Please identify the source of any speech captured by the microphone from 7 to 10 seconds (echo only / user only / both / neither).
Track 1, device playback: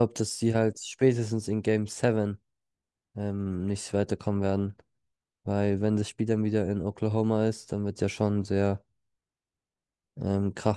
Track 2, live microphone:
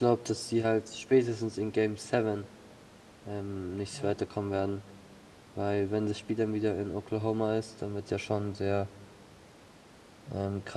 echo only